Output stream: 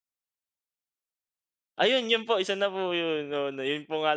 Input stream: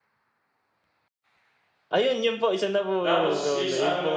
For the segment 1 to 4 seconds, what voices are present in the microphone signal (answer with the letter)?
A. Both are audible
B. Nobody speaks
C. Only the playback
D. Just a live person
A